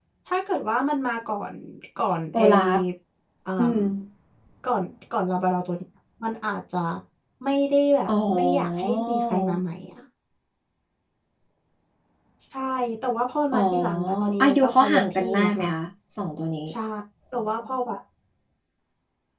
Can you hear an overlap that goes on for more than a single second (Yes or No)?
Yes